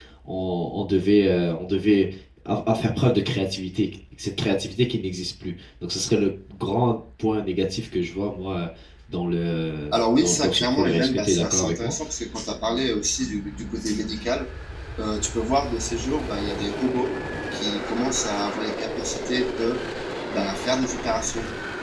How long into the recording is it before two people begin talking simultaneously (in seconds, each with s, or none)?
9.9 s